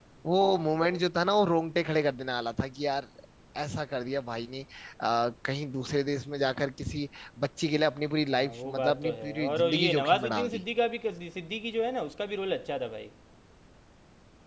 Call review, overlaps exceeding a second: present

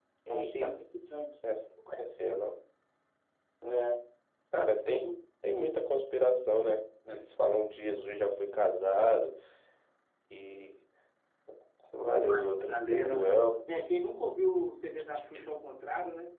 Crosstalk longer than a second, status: present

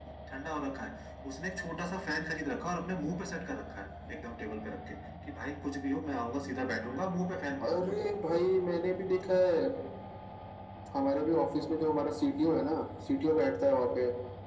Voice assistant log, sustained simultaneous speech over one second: none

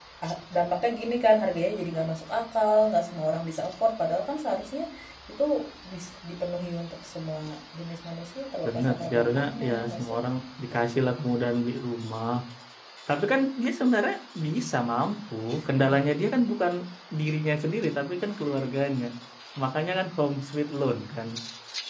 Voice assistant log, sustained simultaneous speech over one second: present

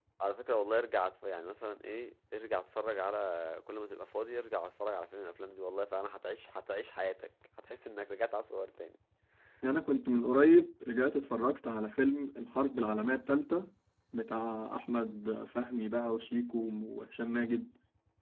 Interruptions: none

